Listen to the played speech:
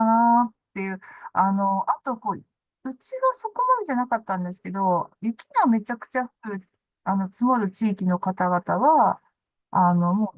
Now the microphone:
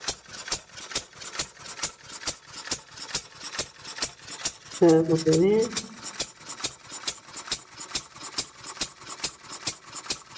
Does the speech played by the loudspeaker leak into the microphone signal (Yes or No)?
No